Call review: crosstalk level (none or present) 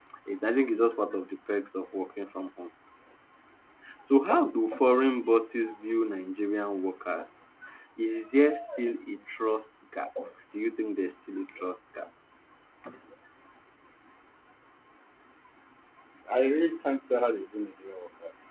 none